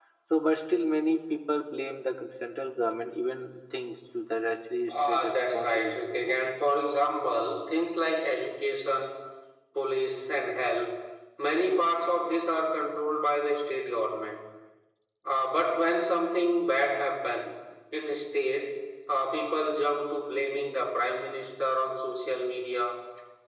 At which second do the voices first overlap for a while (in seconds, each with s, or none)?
4.9 s